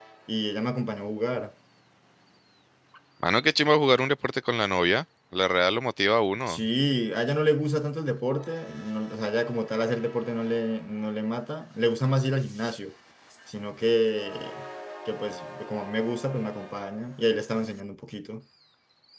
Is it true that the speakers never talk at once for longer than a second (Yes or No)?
Yes